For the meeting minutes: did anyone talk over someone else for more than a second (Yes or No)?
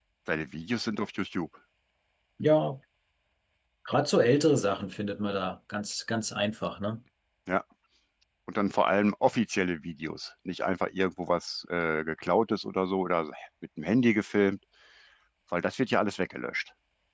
No